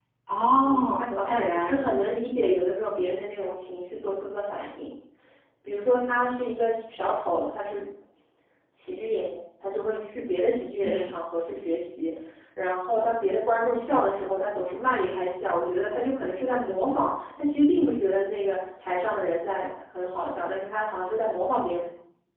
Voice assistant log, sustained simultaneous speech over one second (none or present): present